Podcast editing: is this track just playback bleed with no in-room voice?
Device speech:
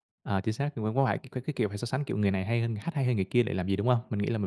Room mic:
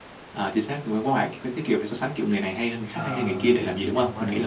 No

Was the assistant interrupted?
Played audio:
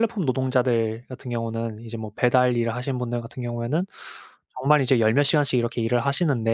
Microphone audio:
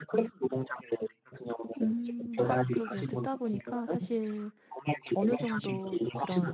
Yes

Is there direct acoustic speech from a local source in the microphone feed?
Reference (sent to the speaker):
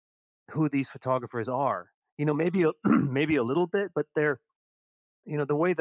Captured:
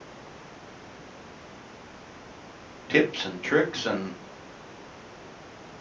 Yes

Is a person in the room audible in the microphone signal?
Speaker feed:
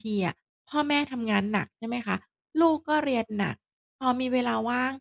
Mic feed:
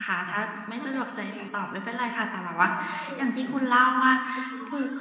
Yes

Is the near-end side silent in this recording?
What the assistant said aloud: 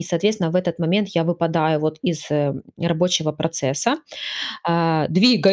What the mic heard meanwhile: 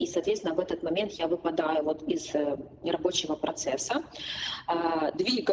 Yes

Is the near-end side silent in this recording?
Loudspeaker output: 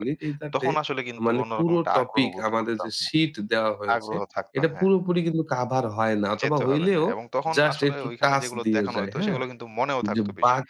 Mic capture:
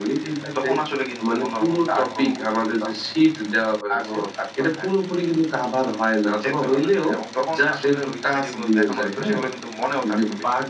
Yes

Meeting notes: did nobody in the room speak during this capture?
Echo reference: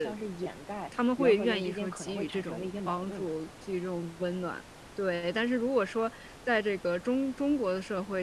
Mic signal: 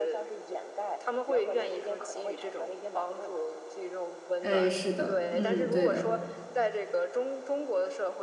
No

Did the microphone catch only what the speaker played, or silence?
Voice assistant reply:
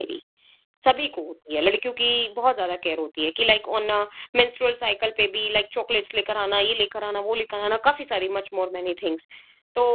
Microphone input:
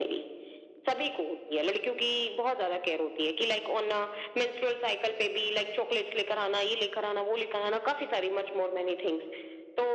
Yes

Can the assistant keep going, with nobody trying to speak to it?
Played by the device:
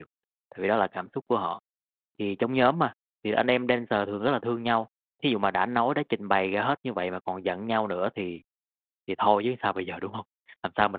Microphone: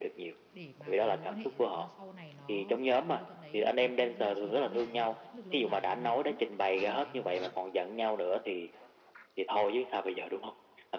No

